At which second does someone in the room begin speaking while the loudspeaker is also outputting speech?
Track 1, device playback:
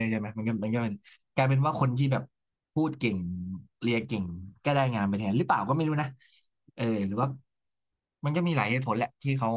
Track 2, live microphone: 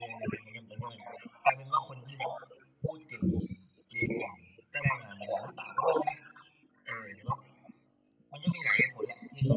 none

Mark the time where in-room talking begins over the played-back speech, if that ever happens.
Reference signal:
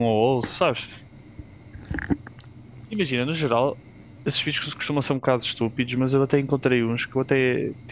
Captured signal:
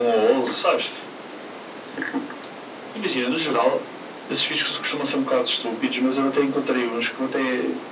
none

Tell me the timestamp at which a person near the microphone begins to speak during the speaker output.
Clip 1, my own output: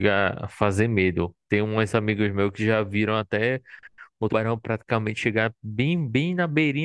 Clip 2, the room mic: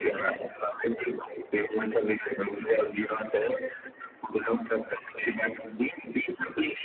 none

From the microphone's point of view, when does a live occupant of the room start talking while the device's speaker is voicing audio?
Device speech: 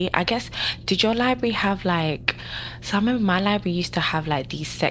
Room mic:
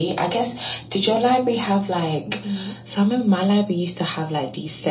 2.2 s

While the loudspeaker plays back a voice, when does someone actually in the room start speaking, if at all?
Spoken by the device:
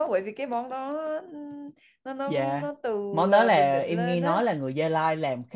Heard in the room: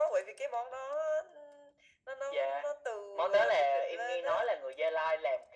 none

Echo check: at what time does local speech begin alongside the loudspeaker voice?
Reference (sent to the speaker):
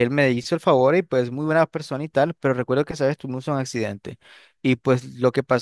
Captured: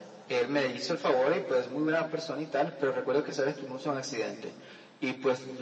none

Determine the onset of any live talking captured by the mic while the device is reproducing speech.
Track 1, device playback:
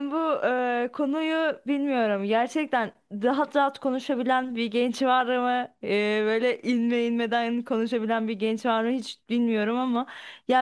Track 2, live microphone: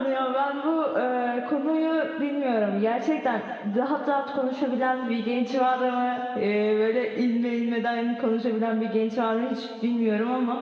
none

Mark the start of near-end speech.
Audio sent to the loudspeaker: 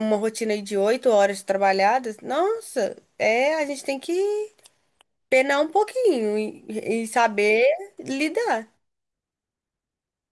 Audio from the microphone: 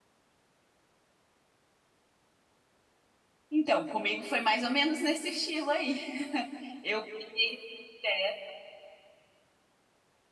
3.5 s

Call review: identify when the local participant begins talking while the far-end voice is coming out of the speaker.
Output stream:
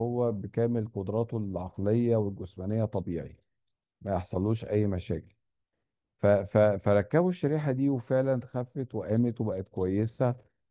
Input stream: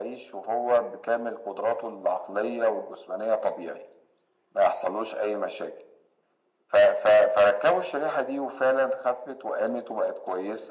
none

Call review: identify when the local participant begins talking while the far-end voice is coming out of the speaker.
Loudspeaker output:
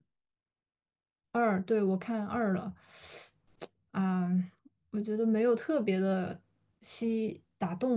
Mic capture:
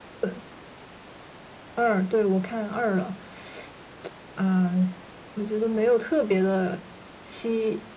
none

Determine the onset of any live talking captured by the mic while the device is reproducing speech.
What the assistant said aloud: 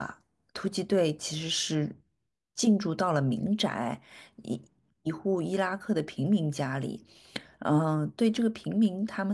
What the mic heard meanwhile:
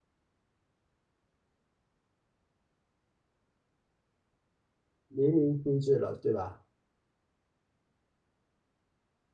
5.1 s

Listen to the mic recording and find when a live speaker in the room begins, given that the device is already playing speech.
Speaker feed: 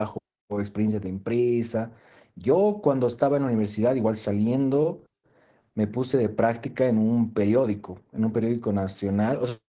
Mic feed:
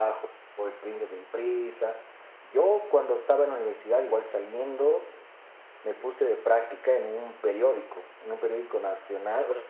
none

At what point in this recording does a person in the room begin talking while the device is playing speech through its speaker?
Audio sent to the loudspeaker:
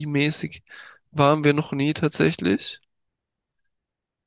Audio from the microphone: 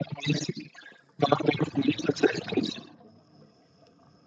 none

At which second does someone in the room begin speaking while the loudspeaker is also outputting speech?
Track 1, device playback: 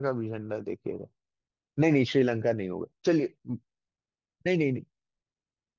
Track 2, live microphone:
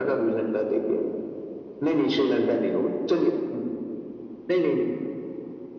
none

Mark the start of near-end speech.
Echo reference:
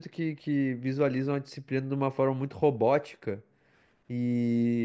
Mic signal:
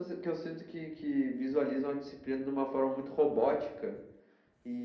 none

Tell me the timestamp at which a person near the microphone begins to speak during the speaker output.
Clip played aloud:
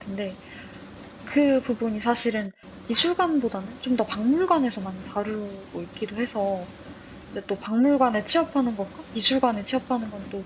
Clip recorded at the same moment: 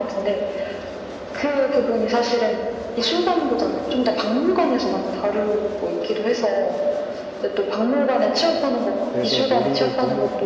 9.1 s

